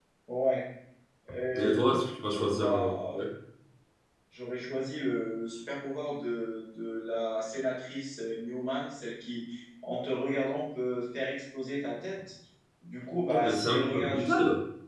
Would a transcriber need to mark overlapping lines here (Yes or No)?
Yes